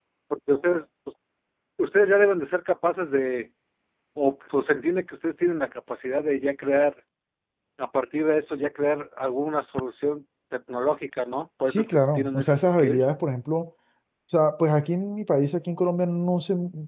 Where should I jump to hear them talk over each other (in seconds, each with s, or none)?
11.7 s